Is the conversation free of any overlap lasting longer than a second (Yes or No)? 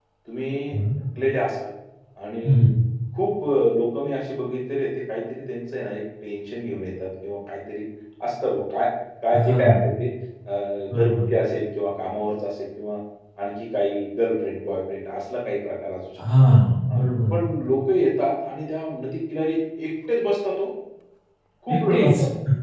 Yes